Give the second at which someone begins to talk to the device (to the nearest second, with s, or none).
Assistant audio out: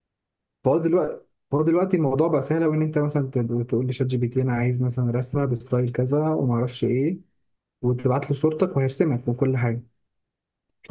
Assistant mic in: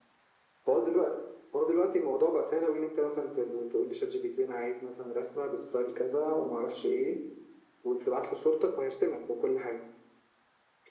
none